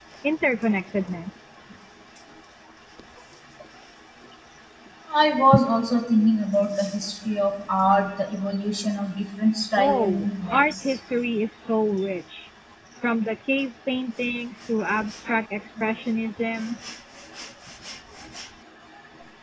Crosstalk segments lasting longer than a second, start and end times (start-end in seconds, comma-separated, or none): 9.8-11.0